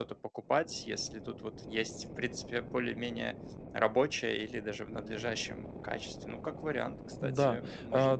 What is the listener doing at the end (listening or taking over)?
taking over